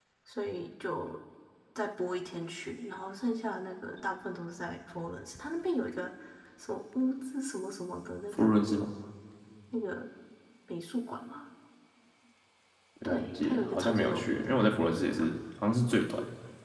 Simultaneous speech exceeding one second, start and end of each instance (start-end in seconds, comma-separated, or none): 13.1-15.3